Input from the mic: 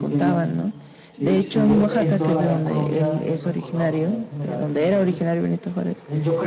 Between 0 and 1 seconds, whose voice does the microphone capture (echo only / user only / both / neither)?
both